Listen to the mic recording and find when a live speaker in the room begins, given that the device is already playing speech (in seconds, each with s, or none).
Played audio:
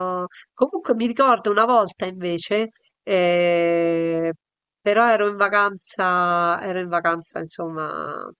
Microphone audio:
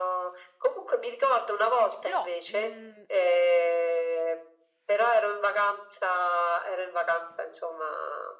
2.0 s